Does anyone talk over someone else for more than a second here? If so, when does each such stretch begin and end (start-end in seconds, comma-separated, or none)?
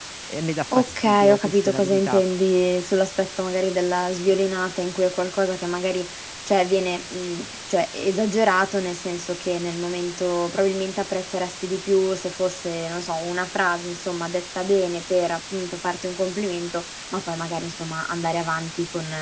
0.7-2.2